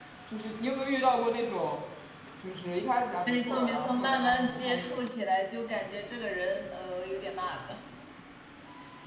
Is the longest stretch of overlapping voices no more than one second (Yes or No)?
No